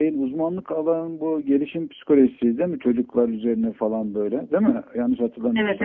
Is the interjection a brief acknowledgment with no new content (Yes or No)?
No